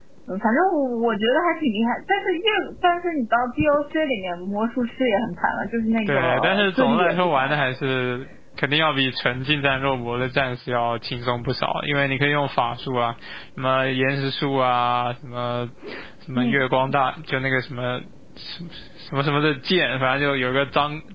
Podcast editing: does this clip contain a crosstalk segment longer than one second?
Yes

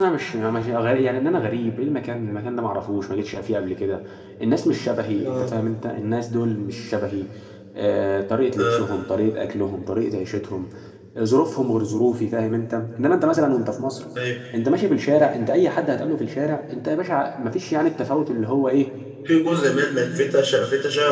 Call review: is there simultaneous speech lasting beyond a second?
No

